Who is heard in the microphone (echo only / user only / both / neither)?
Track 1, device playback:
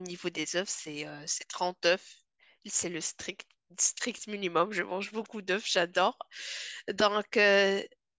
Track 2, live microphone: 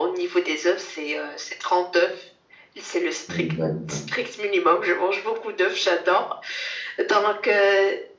both